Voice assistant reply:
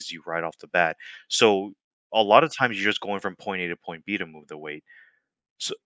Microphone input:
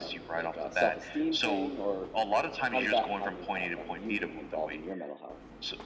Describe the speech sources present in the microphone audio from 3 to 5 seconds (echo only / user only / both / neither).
both